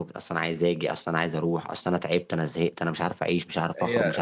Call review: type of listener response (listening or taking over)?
taking over